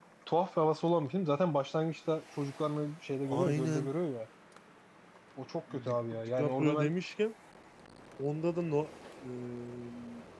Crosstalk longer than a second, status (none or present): present